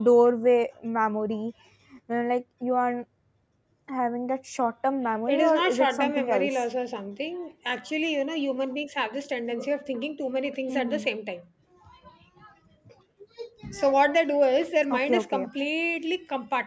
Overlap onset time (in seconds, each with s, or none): 5.3 s